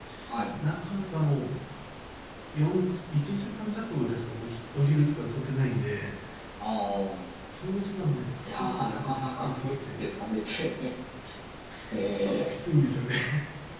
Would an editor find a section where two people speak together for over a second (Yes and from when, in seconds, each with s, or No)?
Yes, from 8.4 s